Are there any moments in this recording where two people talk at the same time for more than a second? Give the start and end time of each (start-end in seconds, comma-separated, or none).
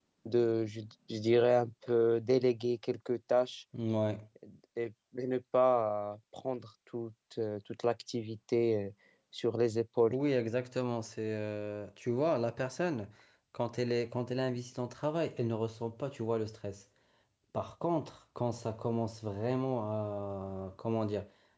none